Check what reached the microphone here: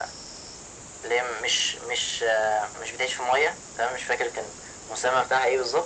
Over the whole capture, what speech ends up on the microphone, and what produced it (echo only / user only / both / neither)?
echo only